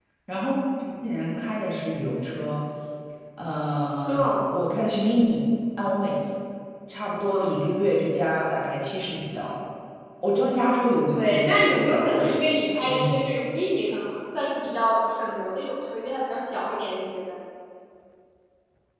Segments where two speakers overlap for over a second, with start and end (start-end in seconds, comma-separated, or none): 11.1-12.3